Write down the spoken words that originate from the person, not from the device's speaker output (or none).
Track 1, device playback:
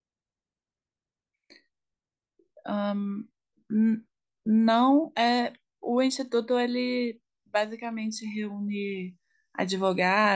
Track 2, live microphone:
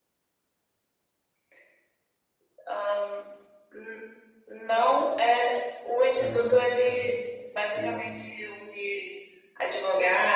É, é. E